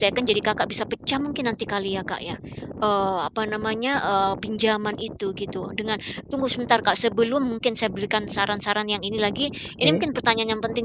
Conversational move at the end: listening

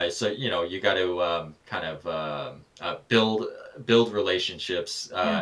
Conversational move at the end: listening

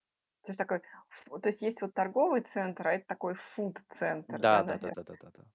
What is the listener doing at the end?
taking over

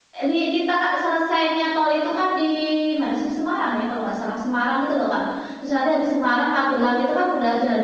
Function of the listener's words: listening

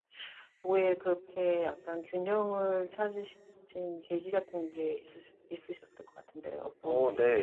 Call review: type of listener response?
taking over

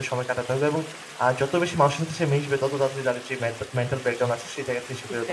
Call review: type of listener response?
taking over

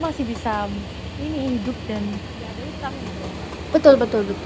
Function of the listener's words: taking over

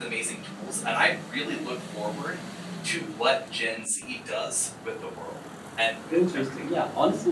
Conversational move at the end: taking over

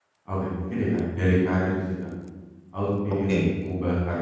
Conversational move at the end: listening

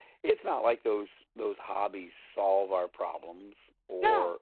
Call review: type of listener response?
listening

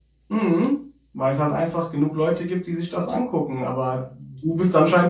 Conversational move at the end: listening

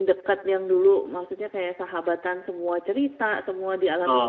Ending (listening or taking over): taking over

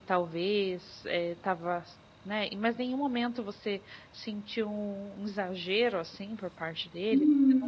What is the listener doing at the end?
taking over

